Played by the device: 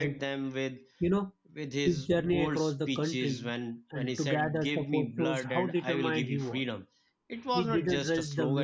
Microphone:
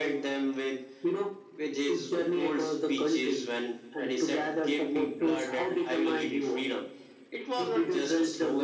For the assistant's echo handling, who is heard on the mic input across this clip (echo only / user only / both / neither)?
echo only